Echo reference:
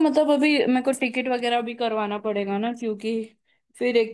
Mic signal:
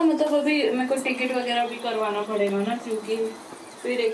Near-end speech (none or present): none